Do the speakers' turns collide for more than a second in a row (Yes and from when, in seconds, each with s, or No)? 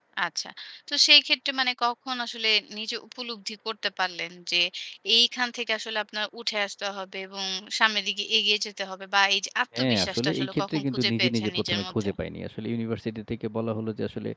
Yes, from 9.7 s